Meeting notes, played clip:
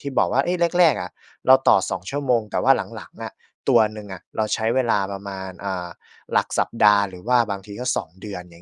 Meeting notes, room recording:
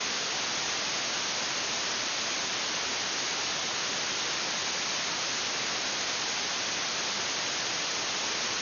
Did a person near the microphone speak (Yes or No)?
No